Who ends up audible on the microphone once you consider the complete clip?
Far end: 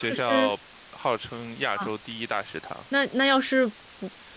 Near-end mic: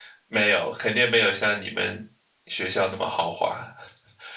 user only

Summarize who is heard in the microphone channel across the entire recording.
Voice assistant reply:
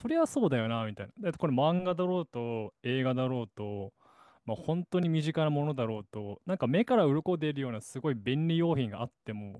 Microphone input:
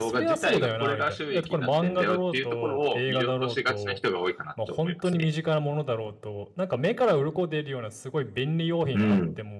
both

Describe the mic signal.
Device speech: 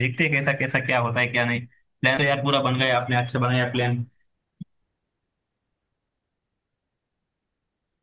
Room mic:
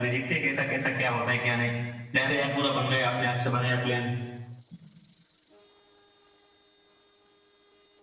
echo only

